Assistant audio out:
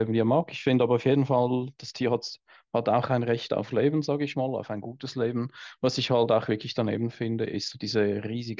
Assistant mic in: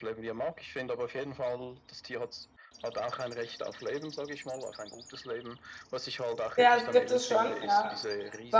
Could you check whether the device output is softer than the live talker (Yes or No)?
Yes